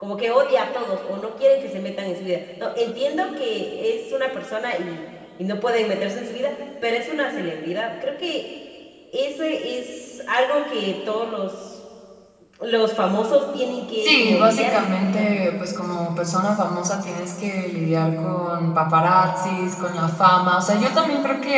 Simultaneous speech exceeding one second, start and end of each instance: 14.0-15.4

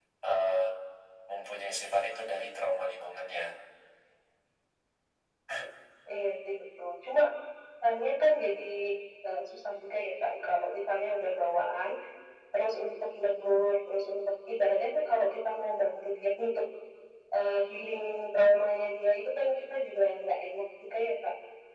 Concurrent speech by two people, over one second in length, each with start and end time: none

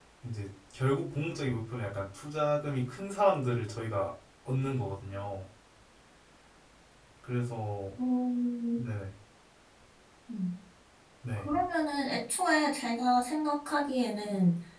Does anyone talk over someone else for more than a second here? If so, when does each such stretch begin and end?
none

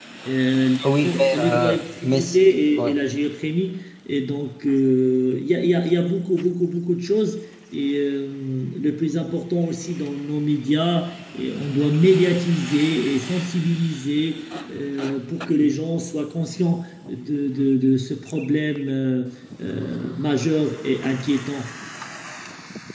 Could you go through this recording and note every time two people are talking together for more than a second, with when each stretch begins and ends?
0.8-2.4

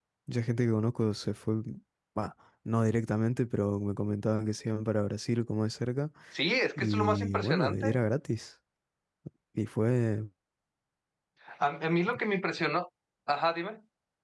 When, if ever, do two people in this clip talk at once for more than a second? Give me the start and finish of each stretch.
6.8-8.0

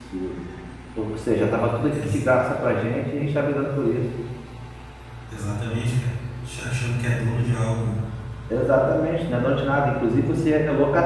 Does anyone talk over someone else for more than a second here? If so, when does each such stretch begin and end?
none

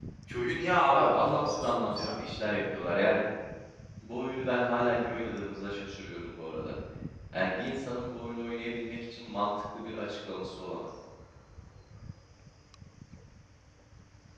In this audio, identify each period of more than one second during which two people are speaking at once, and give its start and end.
0.9-2.2

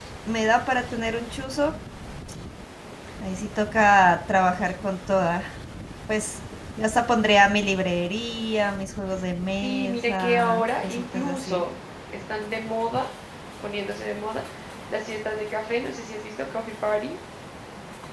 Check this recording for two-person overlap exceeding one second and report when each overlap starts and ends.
9.6-11.6

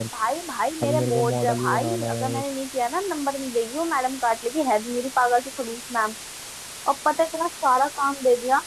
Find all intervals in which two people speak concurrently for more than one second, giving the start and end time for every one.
0.8-2.4

